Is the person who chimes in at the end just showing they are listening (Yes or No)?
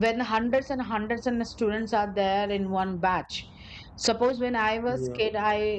Yes